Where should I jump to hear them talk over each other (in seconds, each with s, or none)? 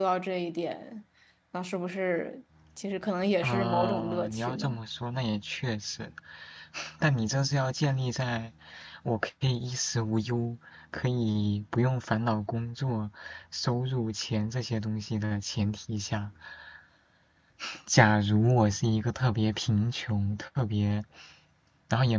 3.4 s